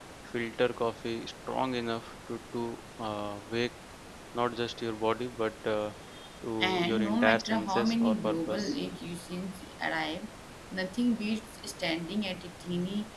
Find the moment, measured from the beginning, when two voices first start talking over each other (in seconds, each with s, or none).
6.6 s